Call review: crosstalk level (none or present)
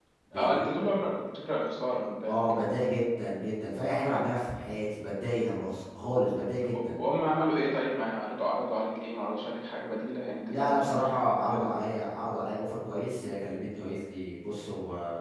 present